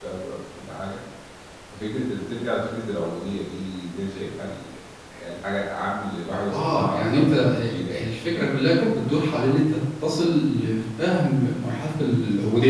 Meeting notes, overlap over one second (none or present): present